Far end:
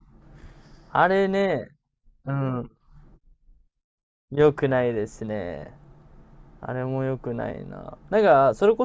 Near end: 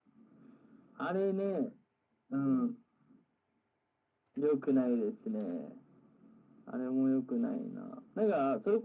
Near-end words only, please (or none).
none